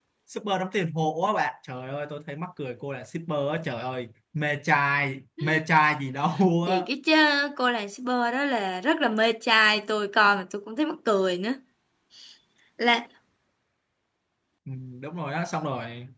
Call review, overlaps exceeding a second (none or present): none